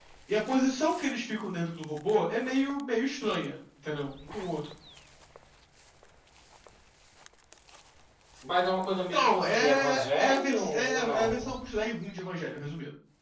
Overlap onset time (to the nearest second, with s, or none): 9 s